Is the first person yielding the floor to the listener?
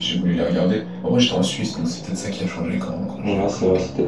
Yes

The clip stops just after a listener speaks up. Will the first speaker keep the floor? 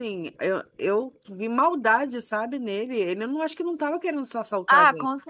No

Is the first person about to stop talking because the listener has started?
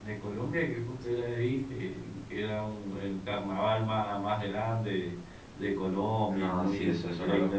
Yes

